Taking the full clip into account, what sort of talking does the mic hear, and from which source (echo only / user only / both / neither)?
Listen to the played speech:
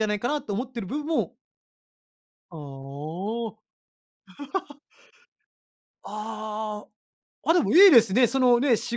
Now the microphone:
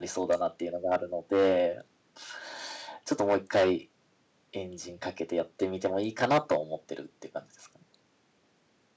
user only